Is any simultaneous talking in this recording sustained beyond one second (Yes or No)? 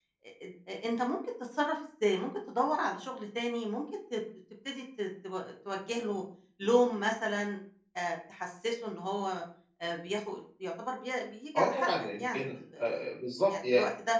Yes